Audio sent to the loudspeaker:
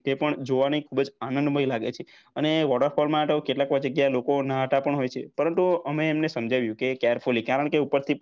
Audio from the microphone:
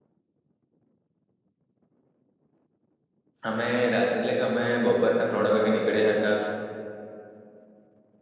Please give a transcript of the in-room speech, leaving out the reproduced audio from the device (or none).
અમે રાત એટલે કે અમે બપોરેના ત્રણેક વાગે નીકળ્યા હતા